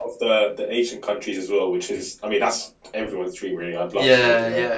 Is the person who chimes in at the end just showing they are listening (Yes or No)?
No